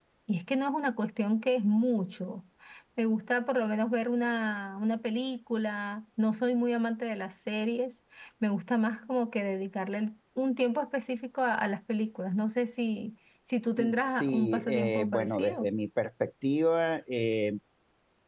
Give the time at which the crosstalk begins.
13.8 s

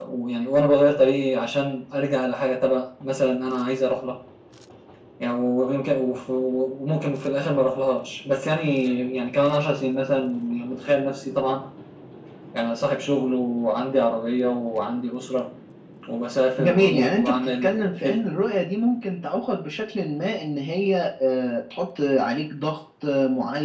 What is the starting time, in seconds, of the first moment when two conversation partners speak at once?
16.6 s

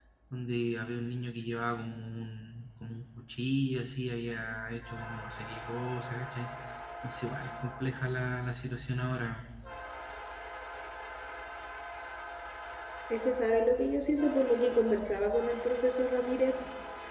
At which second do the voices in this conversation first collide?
none

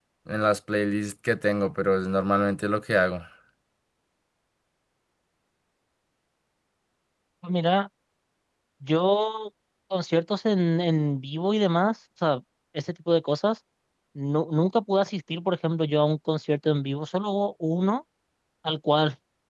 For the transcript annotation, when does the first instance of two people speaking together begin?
none

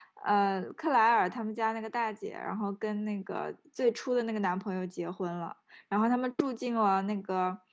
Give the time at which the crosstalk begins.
none

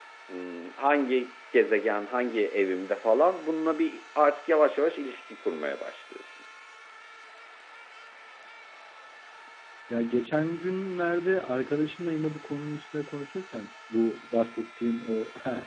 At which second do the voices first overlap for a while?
none

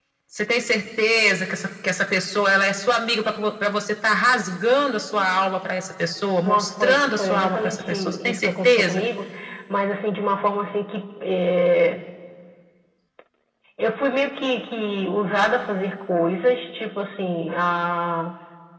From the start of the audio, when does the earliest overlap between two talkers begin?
6.4 s

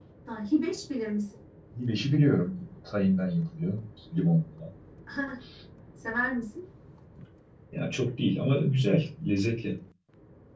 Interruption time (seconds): none

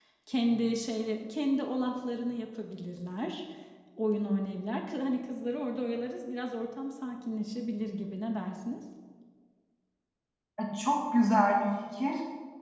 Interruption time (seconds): none

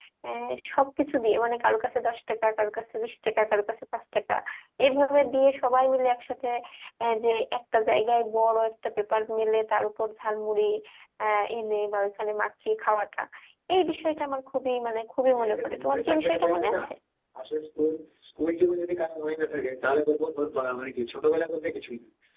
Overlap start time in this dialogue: 15.3 s

